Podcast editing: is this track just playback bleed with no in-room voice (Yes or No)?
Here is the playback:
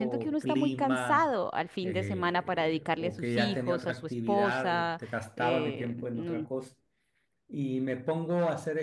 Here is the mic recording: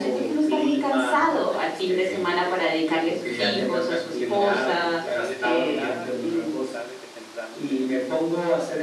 No